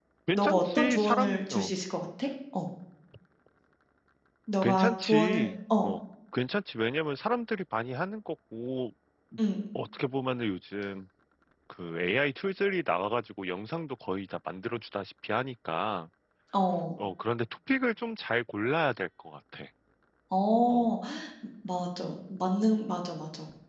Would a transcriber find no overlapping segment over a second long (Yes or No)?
No